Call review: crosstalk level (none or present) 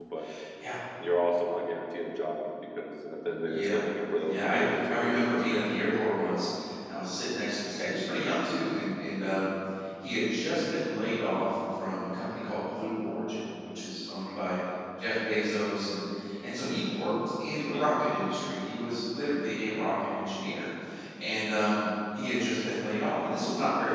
present